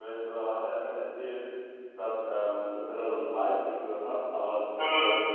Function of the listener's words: listening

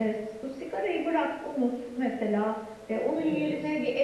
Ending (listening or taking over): listening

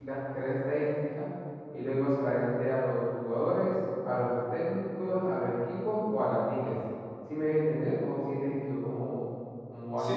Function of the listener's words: taking over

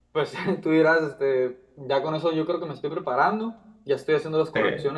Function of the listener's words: listening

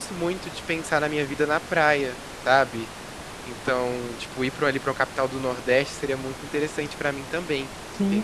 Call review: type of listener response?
taking over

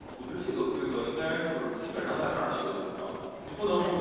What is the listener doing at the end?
listening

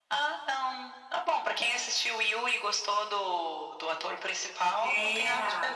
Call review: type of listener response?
taking over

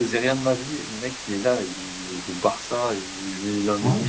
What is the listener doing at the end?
listening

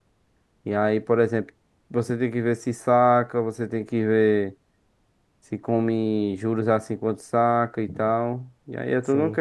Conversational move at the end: taking over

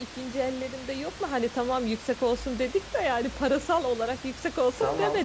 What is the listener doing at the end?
taking over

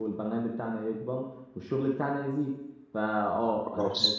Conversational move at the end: listening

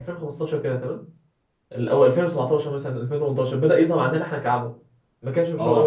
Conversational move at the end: taking over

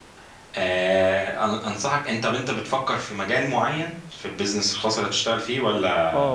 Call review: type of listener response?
taking over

